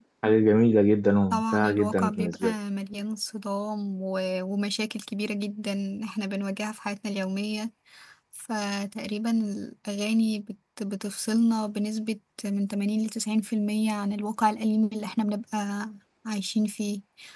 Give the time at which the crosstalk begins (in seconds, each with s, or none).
1.3 s